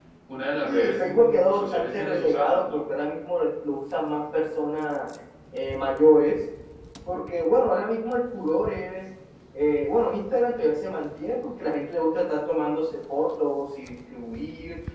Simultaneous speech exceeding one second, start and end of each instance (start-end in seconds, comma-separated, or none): 0.6-2.8